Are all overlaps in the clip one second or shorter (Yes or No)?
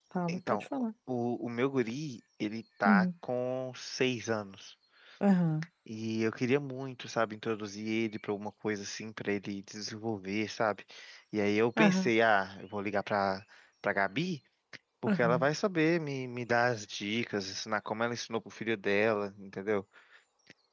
Yes